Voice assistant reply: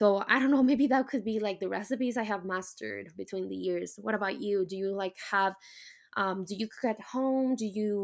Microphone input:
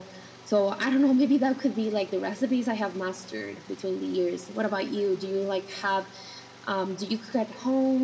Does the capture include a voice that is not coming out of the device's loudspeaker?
No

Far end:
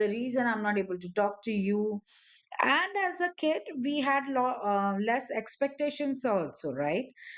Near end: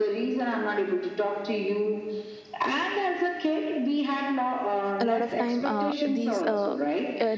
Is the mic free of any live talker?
No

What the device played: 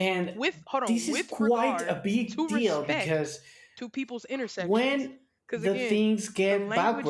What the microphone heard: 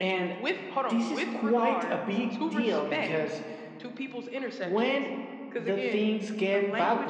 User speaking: No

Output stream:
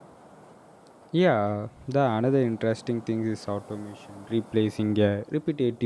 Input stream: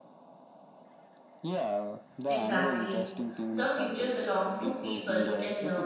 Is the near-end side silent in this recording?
No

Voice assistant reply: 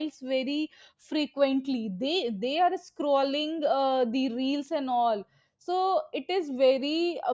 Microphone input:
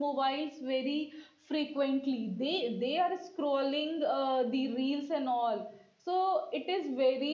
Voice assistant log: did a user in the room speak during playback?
No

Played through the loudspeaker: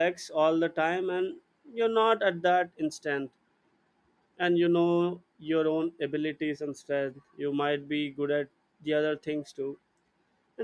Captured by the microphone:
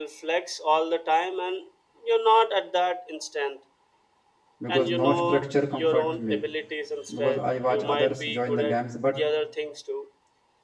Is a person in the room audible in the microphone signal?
Yes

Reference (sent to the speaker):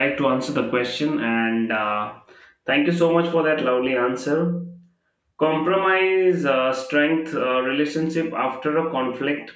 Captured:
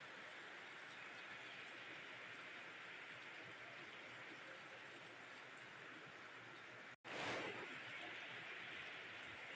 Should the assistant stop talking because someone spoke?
No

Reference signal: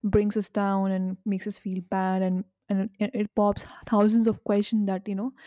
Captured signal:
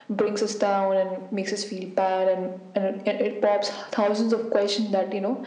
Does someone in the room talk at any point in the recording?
No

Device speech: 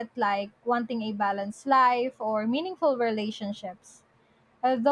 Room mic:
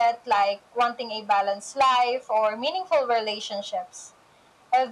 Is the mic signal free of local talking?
Yes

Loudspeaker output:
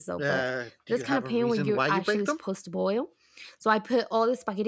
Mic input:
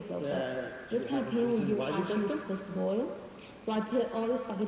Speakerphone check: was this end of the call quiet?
Yes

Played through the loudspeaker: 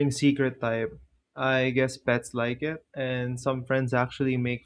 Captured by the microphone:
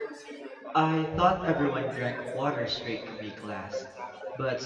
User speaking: Yes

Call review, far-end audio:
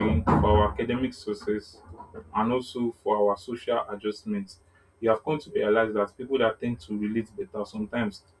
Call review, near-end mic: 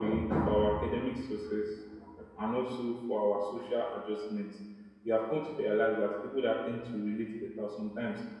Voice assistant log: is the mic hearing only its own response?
Yes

